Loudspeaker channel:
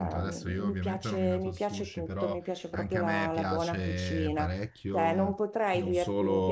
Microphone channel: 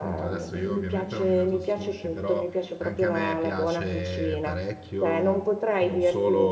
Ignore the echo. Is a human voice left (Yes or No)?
No